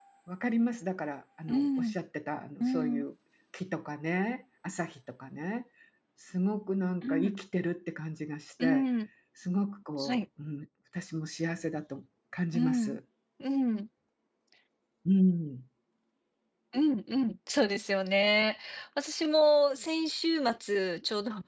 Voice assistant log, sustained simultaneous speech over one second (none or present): none